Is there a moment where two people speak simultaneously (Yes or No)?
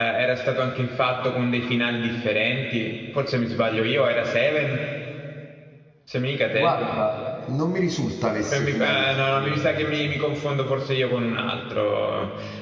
Yes